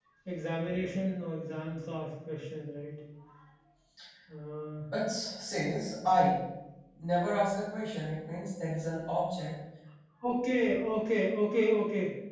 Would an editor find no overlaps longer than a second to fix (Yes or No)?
Yes